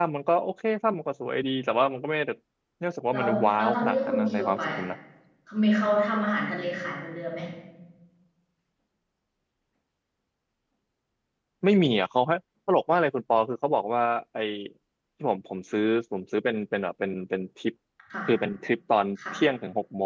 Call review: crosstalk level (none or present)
present